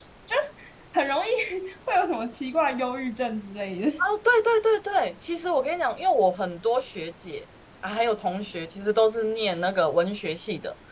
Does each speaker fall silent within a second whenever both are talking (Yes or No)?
Yes